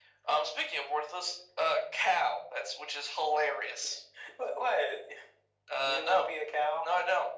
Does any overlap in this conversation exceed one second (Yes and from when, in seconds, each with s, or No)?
No